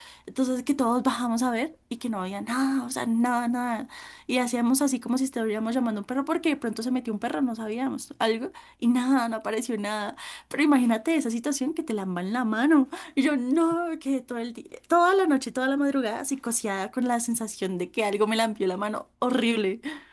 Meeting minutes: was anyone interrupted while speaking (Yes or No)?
No